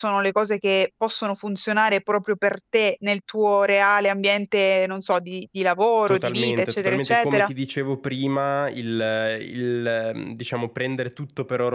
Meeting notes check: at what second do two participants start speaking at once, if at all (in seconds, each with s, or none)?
6.1 s